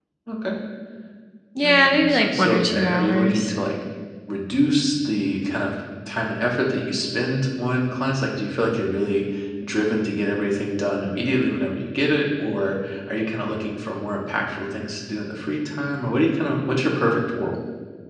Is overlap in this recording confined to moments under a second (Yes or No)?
No